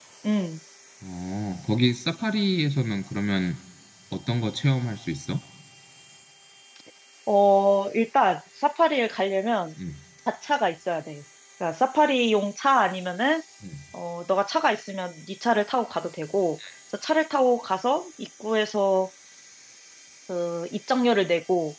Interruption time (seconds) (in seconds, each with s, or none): none